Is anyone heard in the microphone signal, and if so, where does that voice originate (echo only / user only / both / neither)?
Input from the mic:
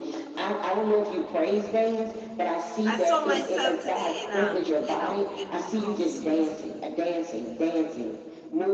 both